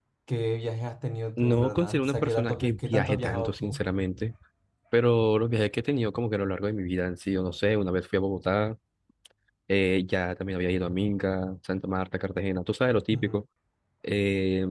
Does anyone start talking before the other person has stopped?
Yes, from 1.4 s

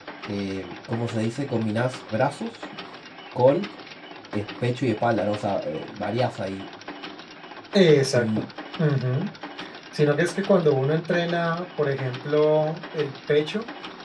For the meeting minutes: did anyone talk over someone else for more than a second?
No

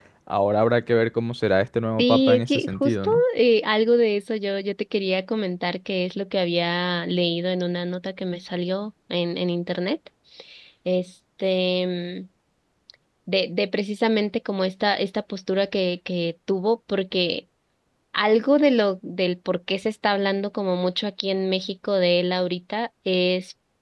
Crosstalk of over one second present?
Yes, from 2.0 s

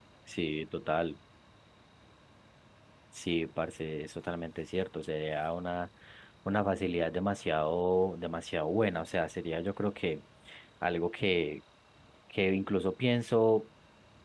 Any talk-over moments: No

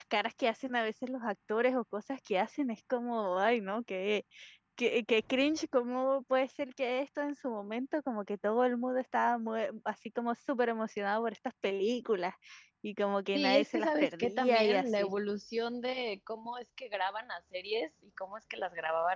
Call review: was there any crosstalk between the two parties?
Yes, from 13.3 s

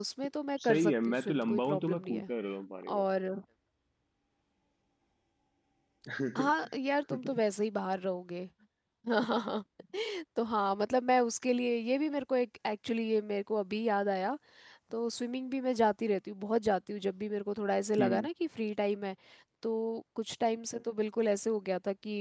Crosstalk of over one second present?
Yes, from 0.7 s

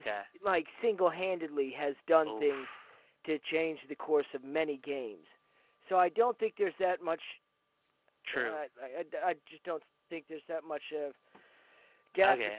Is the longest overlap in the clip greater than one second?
No

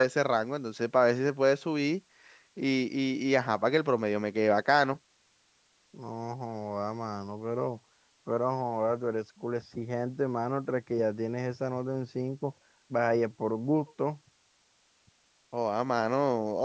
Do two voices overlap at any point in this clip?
No

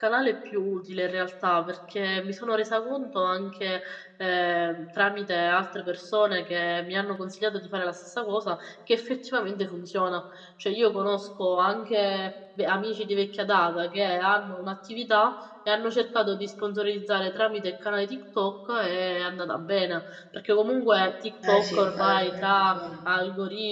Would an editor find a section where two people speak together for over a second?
Yes, from 21.4 s

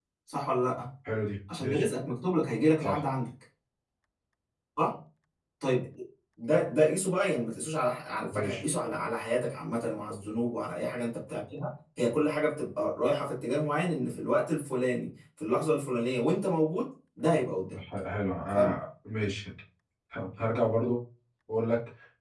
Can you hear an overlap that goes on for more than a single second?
No

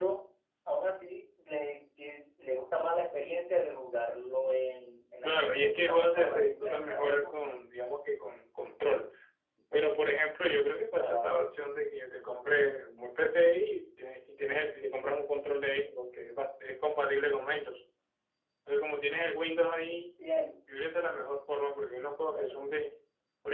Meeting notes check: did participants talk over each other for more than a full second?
Yes, from 5.2 s

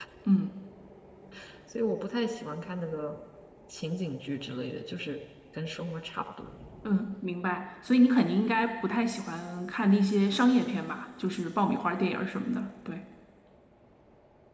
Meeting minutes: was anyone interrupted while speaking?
No

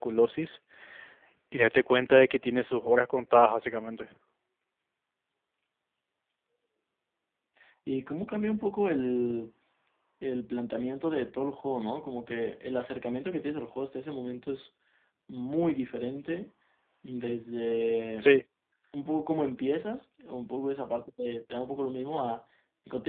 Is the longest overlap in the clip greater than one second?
No

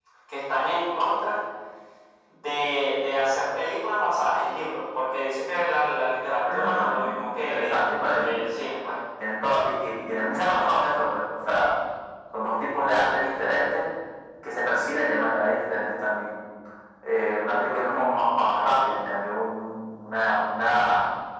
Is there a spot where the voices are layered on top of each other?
Yes, from 6.5 s

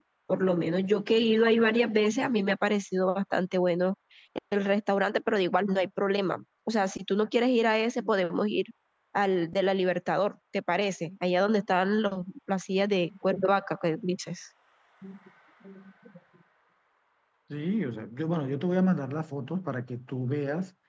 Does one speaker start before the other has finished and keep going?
No

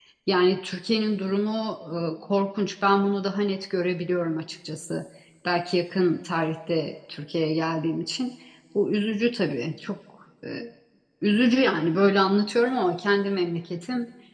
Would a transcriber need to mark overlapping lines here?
No

